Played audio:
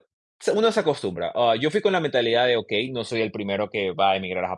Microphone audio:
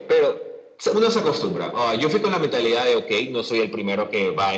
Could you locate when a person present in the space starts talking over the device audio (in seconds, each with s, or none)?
none